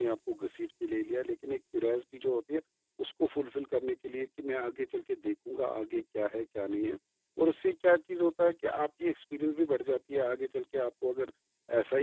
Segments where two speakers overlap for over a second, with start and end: none

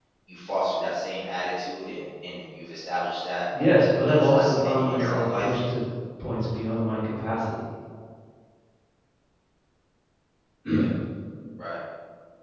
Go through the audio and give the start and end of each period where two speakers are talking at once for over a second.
4.1-5.6

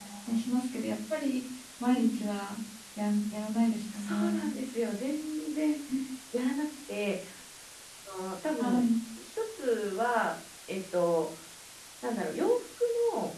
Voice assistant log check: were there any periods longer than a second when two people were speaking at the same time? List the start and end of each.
none

